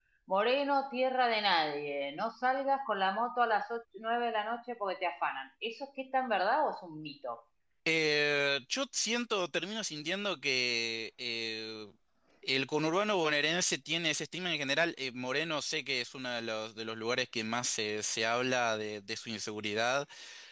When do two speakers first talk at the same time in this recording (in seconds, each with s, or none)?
none